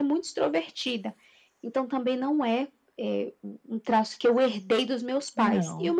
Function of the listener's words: listening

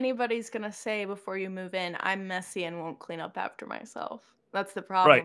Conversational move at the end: taking over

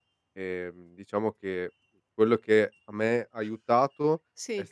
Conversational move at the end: listening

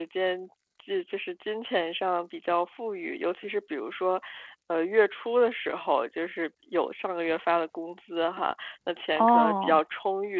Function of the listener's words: listening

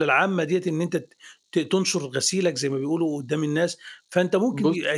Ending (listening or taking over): listening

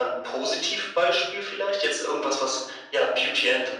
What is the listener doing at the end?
listening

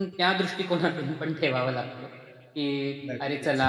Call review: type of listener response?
listening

